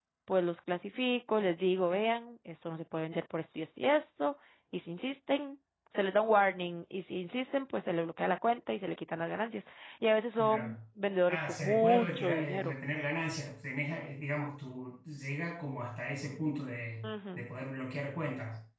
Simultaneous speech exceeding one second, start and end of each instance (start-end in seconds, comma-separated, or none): 11.3-12.7